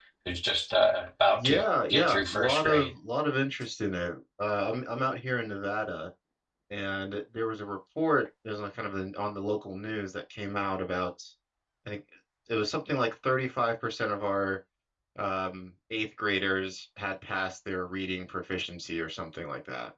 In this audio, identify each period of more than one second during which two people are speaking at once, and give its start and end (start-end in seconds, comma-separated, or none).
1.4-2.9